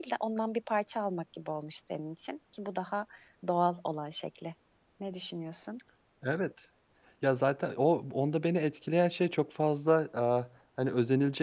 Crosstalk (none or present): none